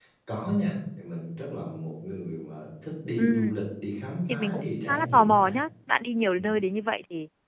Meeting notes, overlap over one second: present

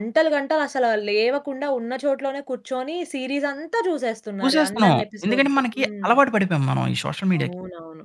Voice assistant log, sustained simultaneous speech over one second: present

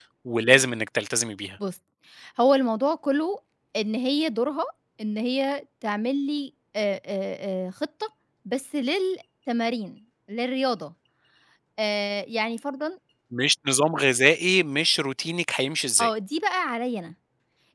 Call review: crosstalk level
none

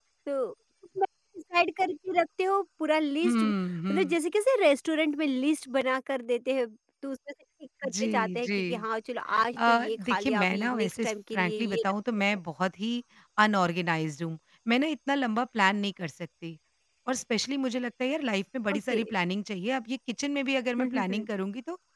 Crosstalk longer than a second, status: present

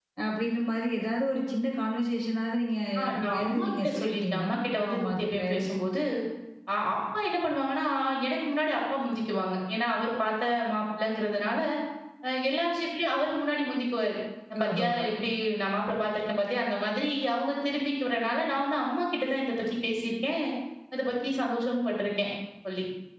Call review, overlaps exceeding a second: present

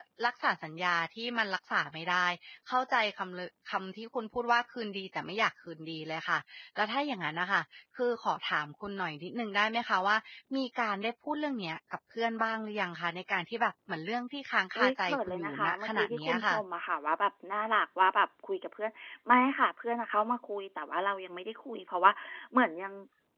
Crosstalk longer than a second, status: present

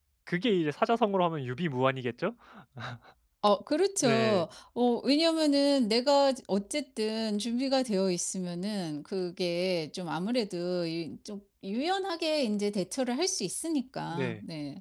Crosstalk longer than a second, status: none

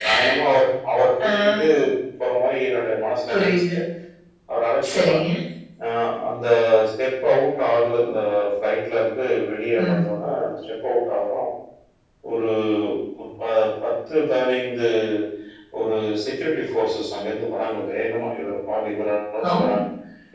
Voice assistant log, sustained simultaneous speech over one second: none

